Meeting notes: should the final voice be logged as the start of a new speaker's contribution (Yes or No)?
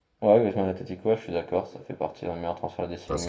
Yes